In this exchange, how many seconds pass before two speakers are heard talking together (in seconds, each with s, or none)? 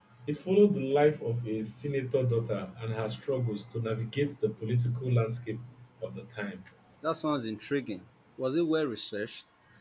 none